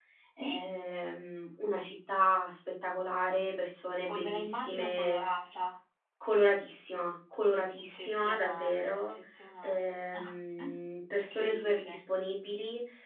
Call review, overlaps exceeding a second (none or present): present